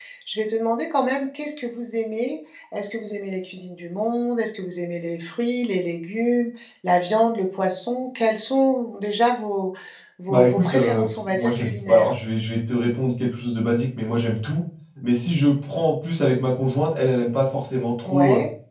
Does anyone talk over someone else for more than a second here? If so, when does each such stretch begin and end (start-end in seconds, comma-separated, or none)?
10.3-12.1